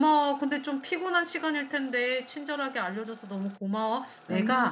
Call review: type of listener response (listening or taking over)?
listening